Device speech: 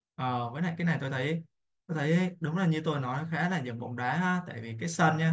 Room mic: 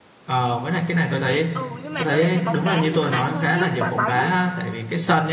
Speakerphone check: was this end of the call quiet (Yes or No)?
No